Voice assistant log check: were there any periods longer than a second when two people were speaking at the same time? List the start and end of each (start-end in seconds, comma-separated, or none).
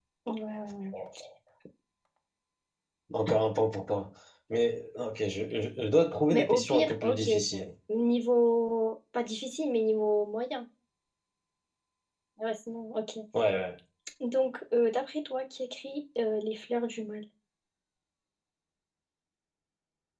6.3-7.6